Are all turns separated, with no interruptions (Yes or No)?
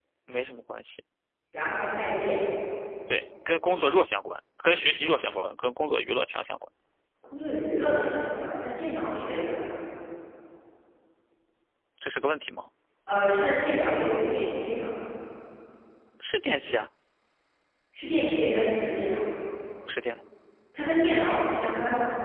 Yes